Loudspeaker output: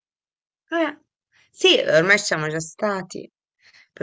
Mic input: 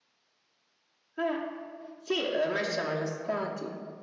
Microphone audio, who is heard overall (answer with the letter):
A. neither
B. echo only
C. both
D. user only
B